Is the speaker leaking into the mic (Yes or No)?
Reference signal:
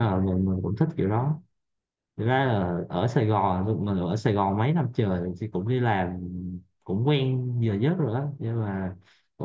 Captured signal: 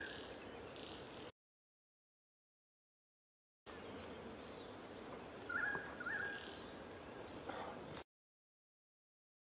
No